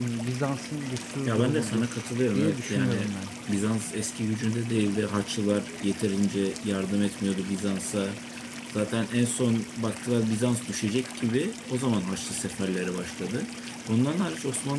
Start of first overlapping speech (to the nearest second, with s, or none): 1 s